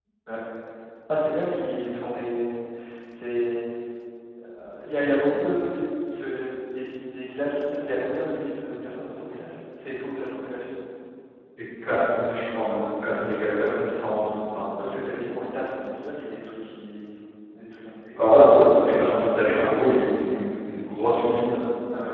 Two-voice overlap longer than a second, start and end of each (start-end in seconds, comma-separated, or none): none